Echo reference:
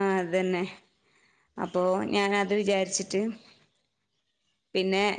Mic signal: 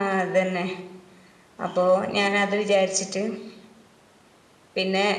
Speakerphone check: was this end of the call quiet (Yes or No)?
Yes